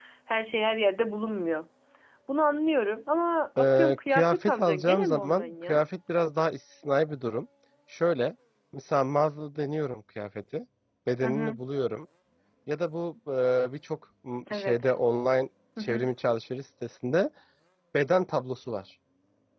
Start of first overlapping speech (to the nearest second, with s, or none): 4 s